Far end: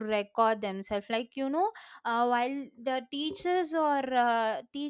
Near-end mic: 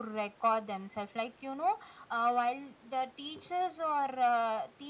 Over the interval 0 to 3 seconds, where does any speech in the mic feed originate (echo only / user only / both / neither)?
echo only